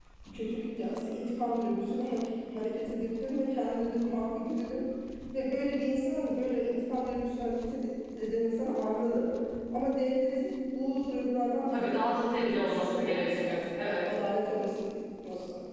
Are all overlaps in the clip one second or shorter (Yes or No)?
No